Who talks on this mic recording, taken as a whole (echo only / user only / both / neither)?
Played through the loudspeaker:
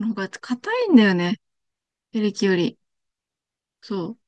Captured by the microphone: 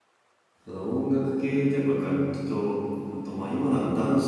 user only